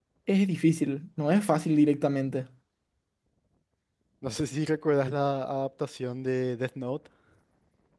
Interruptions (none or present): none